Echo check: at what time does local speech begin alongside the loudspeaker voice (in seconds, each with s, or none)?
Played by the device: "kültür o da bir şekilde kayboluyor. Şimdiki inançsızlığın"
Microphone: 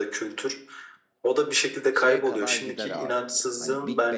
1.9 s